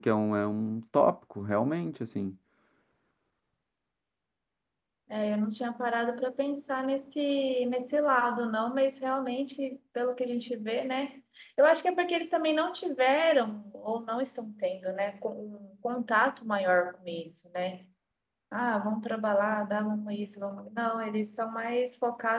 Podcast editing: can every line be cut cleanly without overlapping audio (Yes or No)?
Yes